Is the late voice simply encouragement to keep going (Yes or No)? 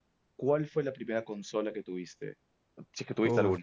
No